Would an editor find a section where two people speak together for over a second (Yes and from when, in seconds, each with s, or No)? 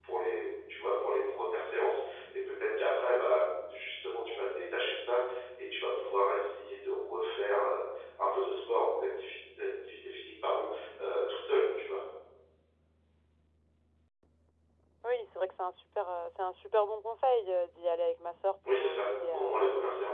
Yes, from 18.6 s